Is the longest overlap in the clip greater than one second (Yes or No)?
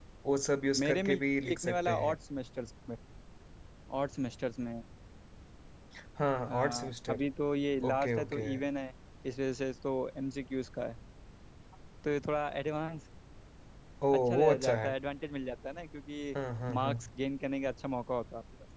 Yes